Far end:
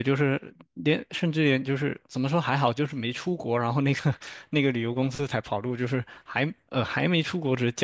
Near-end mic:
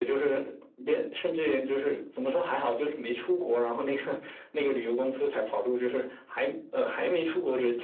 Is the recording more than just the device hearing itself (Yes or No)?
No